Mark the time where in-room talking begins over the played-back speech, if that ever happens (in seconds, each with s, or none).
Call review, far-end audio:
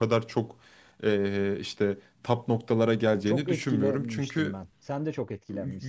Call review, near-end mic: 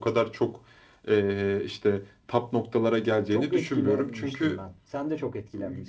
none